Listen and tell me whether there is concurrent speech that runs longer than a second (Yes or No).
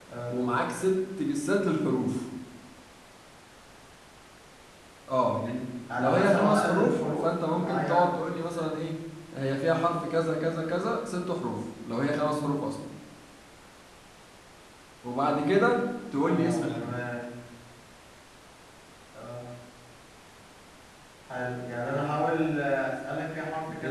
Yes